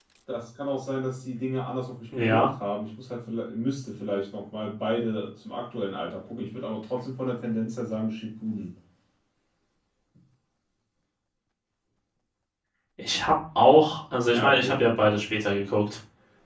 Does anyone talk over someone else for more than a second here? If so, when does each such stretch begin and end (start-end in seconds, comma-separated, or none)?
none